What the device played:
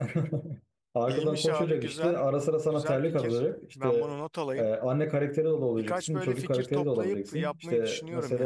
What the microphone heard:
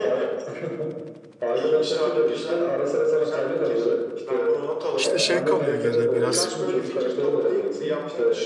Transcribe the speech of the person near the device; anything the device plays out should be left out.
İşte şey kalıyor geriye biraz

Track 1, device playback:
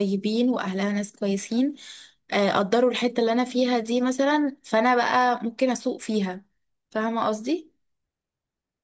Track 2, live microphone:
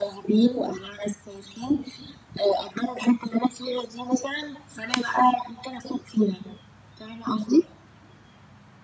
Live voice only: none

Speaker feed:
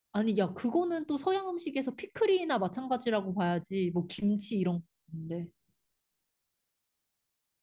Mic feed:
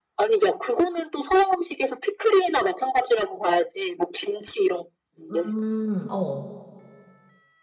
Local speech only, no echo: 음, 어.

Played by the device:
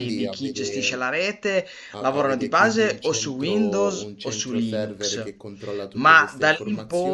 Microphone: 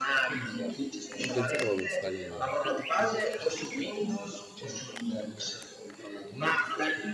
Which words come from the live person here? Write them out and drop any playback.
non pensavo a questa cosa.

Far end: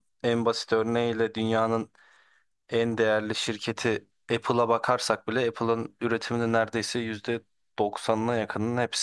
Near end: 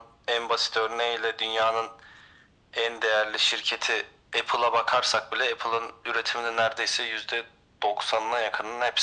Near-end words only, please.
none

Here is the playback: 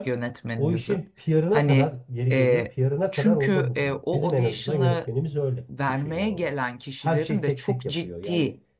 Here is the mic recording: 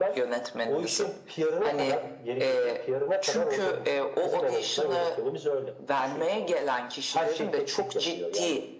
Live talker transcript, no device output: none

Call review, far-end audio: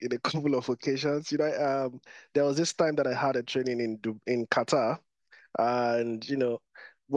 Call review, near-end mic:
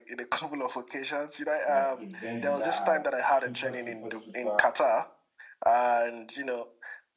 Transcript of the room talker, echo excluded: like events that are super, super, super

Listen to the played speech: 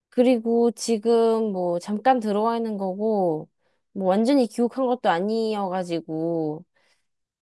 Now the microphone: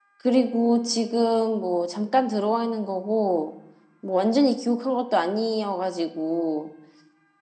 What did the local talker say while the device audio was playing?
none

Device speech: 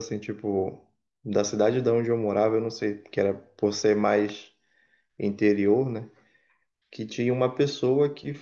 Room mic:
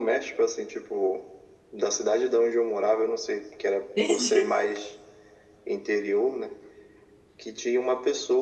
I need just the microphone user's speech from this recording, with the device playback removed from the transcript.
Entendi.

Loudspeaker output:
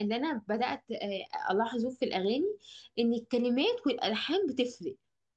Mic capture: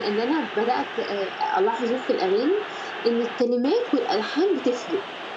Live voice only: none

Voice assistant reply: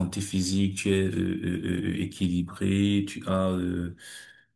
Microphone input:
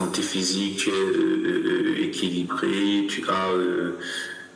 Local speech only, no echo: none

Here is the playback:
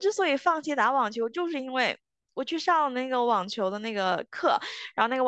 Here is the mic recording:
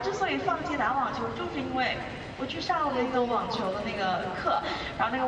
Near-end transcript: 对对对

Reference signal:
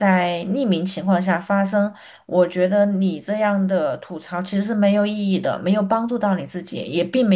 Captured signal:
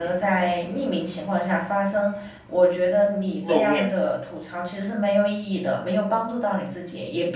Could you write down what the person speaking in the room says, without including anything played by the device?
露面，

